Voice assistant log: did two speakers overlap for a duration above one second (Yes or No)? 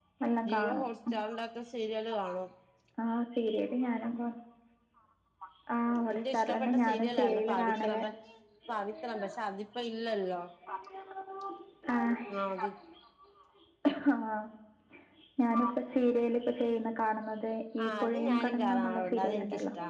Yes